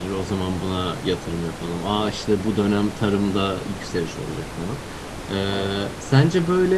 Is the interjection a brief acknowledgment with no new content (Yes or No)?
Yes